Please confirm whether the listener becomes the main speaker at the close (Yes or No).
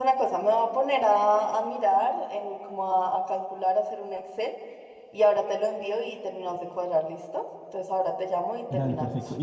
Yes